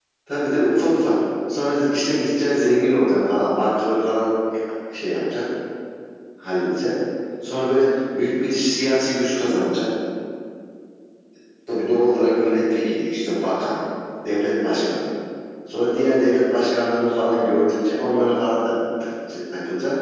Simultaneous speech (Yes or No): No